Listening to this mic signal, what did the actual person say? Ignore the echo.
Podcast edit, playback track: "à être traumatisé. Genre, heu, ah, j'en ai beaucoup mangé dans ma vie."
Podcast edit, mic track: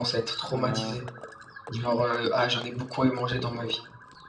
Heu,

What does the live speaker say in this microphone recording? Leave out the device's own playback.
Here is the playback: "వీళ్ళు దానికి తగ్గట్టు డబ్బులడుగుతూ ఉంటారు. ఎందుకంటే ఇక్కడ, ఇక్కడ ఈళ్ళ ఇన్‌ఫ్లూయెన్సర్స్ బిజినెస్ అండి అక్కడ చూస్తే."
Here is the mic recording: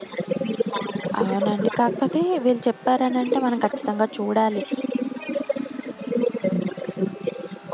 అవునండి. కాకపోతే వీళ్ళు చెప్పారనంటే మనం ఖచ్చితంగా చూడాలి

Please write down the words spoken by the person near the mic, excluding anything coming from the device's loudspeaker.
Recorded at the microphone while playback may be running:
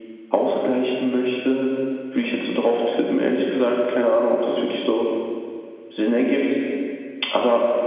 none

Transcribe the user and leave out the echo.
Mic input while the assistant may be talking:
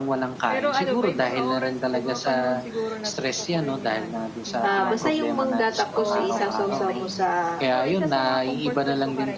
ah, basta yung mangga tapos isasawsaw mo sa

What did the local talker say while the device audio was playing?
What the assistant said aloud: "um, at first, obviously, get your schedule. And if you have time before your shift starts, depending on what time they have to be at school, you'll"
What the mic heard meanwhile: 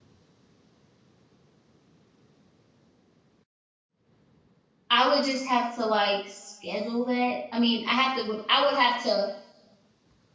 I would just have to, like, schedule that. I mean, I have to would I would have to

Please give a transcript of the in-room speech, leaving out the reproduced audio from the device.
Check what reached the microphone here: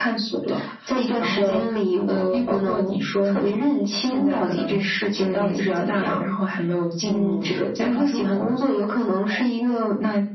none

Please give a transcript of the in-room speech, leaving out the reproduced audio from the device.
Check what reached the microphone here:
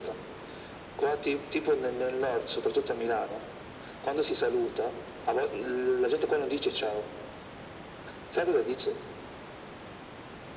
none

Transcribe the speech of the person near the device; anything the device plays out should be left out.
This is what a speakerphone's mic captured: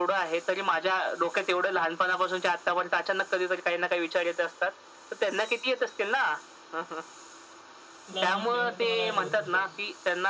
लहान असल्यामुळे तुम्हाला आठवत नसेल.

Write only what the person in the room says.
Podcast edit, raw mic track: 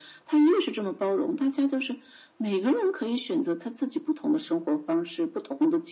none

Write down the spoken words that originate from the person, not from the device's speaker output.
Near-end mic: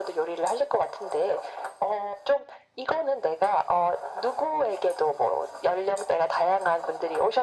none

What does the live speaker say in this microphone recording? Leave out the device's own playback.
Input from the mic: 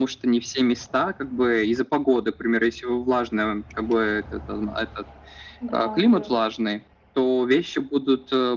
Да, да.

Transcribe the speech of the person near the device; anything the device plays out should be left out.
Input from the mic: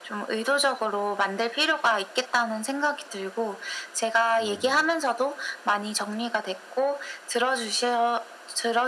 네.

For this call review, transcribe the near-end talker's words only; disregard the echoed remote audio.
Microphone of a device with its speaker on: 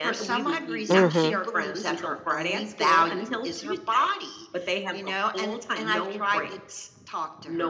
mhm,

